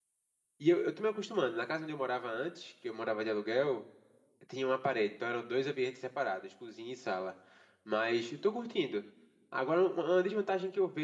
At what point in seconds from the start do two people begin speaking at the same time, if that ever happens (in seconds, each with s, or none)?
none